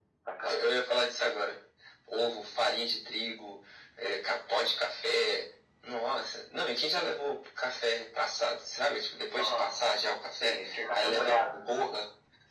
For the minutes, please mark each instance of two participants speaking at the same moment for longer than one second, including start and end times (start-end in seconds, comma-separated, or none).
10.4-11.7